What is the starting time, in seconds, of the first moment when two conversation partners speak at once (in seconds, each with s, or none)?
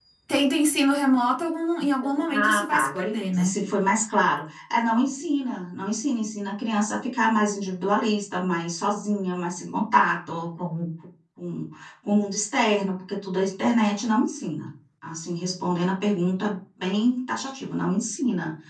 2.2 s